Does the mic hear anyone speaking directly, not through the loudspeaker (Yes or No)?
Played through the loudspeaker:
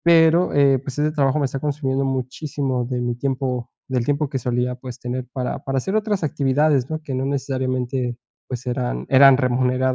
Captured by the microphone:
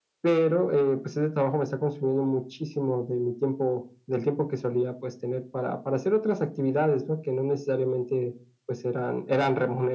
No